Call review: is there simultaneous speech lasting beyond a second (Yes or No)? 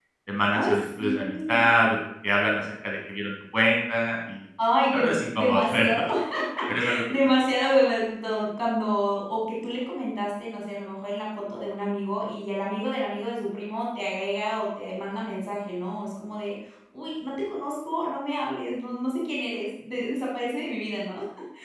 Yes